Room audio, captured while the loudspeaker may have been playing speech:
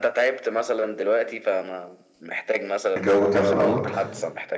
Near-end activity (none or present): present